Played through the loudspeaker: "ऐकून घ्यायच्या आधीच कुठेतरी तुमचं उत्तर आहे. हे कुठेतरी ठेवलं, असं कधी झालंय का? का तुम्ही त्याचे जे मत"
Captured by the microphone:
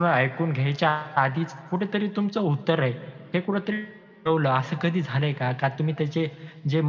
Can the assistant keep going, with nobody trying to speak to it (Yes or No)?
Yes